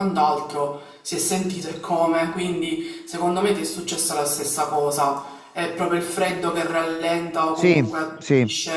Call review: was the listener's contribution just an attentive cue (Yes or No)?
Yes